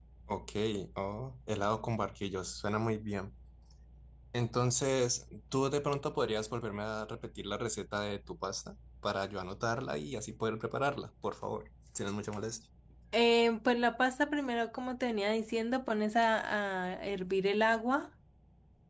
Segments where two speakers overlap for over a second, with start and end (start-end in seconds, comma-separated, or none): none